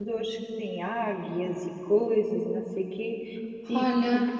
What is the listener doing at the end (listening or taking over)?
listening